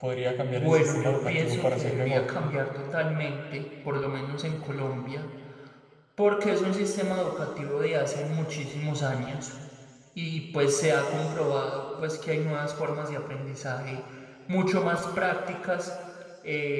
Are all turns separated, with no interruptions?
No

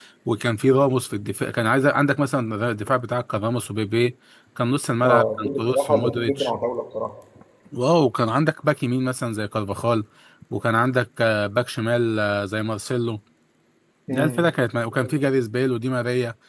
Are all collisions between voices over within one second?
No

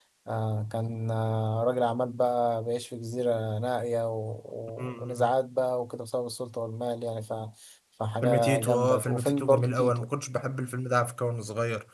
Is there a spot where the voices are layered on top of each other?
Yes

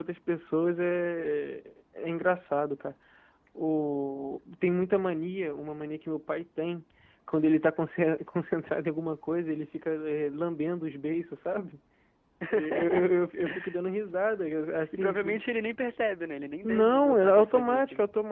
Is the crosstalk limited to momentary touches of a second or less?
No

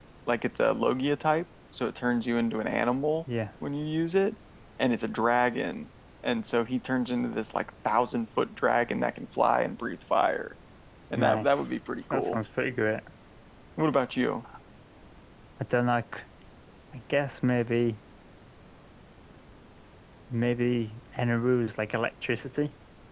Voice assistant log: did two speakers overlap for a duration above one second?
No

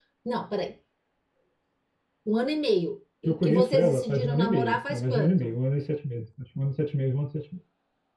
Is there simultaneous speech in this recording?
Yes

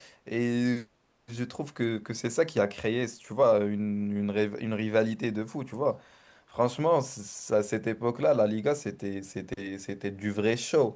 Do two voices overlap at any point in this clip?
No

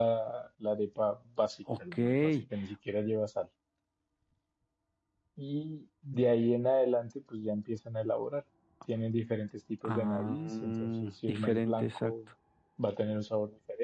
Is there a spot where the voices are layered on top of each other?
Yes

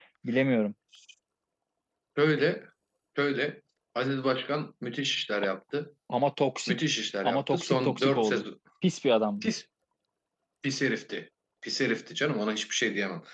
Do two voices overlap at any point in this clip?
Yes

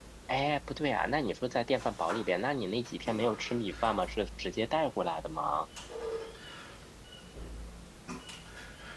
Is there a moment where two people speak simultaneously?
No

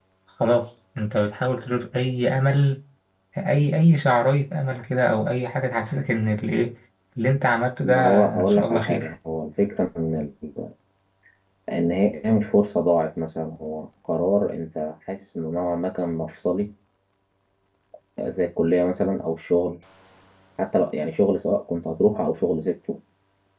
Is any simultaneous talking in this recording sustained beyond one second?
Yes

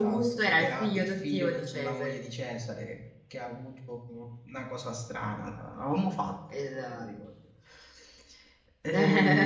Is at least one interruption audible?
Yes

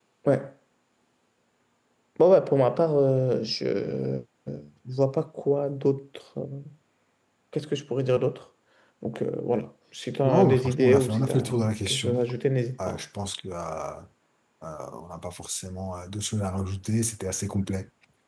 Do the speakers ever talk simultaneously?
Yes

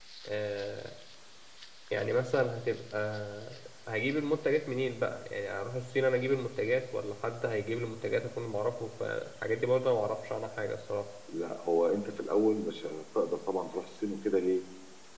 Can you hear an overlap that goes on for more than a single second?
No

